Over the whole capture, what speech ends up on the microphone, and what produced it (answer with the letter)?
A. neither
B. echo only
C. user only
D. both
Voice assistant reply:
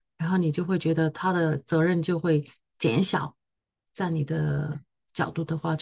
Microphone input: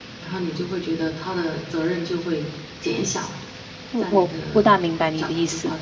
D